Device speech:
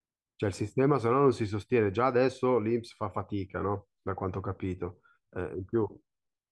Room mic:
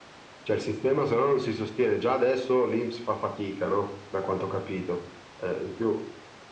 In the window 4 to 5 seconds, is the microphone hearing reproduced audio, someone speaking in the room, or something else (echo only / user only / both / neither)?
echo only